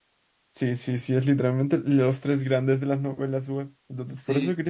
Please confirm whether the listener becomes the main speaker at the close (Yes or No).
Yes